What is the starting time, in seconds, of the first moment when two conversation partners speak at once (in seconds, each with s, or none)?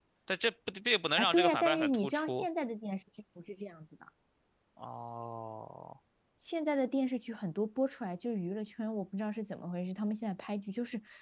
1.2 s